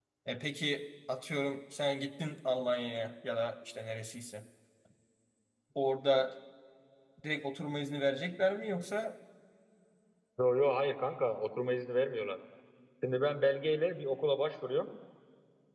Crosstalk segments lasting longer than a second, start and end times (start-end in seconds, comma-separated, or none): none